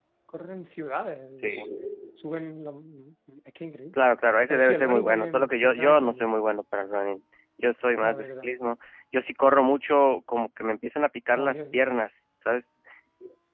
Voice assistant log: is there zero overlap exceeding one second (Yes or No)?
No